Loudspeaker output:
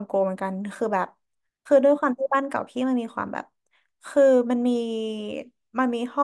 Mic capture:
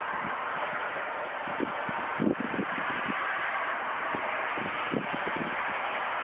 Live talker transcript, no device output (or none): none